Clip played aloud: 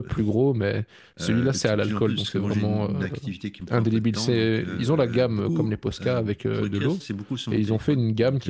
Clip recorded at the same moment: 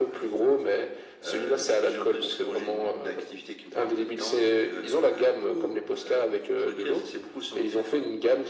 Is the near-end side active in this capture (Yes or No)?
No